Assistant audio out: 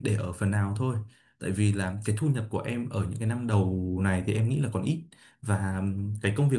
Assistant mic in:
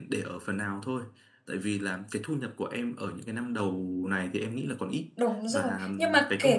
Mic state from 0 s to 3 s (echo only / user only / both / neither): echo only